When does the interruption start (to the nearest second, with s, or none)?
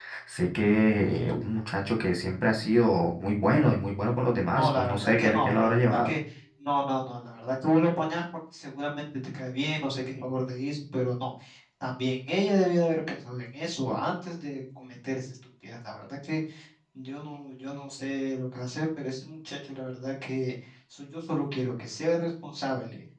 5 s